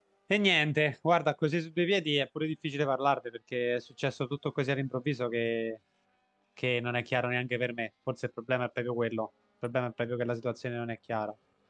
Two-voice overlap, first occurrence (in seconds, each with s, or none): none